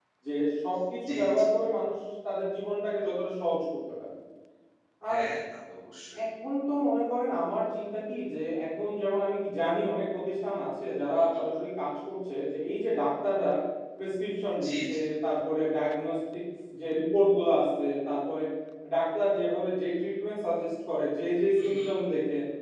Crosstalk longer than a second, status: none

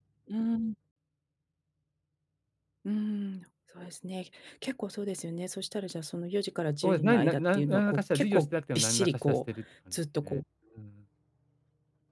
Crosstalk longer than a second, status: present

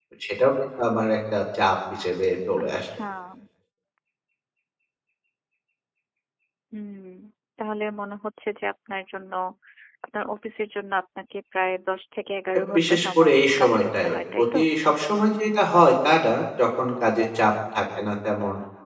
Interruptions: present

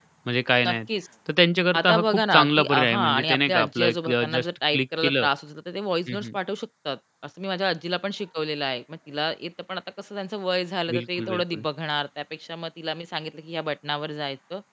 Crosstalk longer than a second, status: present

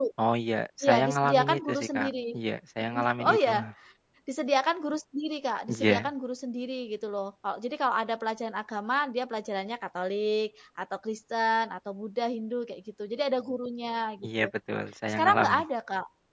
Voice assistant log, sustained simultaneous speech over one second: present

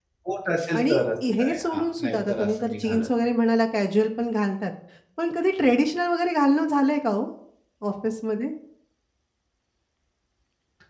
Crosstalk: present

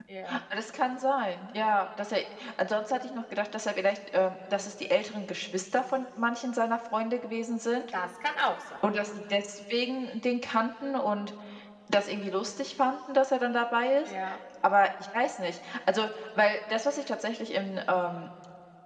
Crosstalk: none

